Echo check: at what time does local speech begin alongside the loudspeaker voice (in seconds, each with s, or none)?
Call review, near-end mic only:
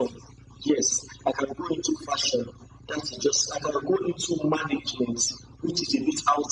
none